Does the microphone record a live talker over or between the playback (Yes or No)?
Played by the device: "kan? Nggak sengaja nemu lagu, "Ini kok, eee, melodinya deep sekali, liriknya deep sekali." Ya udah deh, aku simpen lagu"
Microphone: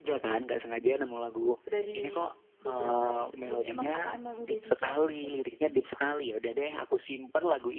Yes